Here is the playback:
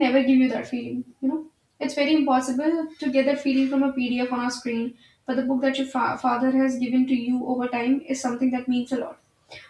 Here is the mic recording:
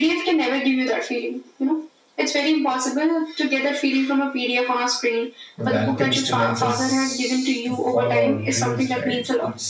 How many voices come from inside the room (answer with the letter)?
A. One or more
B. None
A